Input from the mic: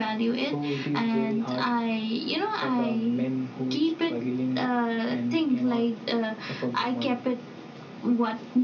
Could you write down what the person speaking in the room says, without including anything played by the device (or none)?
none